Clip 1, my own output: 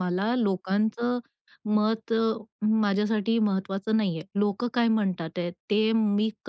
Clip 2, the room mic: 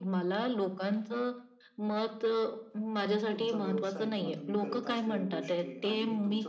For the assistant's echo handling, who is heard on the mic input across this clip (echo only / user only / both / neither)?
both